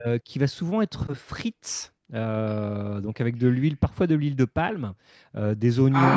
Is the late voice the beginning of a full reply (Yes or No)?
No